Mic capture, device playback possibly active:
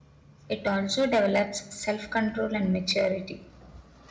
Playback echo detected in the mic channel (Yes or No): No